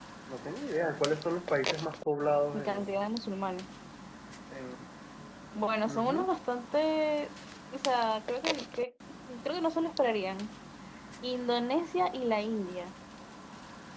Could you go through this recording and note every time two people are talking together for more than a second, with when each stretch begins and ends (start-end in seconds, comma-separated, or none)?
none